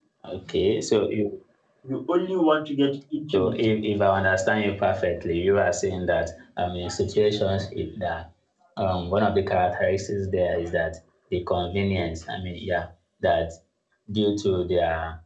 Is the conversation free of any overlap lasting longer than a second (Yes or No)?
Yes